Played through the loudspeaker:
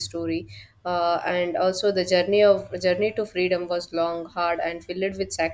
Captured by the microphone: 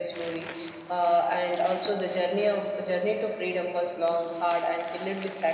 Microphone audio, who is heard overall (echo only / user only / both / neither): echo only